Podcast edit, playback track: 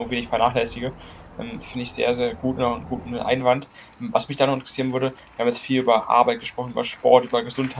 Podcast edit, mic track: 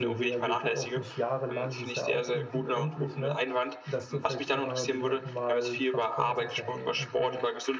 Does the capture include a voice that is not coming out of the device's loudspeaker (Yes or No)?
Yes